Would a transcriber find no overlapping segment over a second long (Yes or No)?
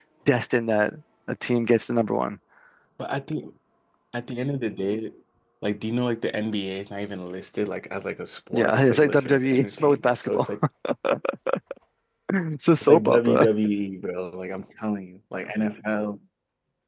No